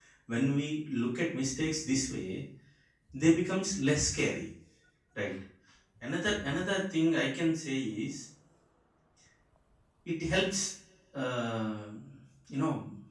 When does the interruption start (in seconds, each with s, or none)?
none